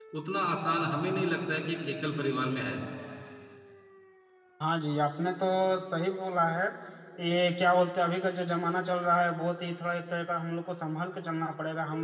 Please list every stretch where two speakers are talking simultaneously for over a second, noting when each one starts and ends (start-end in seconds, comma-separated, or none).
none